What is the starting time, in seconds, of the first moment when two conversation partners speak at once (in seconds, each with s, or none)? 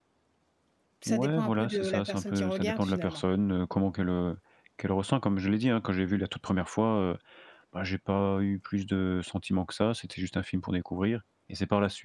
1.1 s